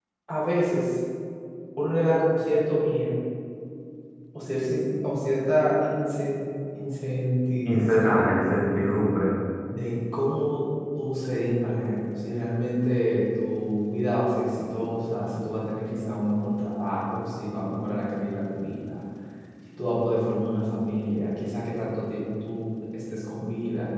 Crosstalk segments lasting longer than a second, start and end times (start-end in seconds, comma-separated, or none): 7.7-8.9